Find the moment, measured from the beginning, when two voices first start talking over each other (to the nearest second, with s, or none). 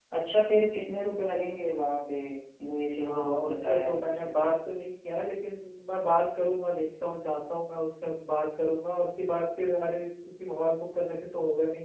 3 s